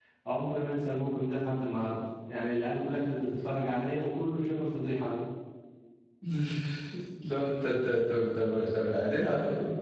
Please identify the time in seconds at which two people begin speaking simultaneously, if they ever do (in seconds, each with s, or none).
none